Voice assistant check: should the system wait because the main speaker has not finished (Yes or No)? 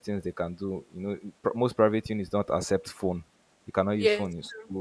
Yes